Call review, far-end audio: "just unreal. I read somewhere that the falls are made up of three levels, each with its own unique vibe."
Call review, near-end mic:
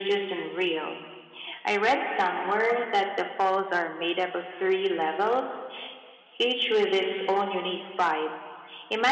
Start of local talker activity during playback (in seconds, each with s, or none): none